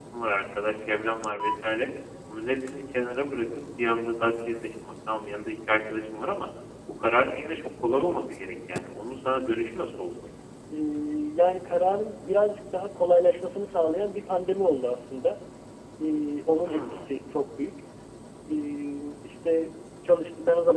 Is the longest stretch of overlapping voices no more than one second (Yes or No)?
Yes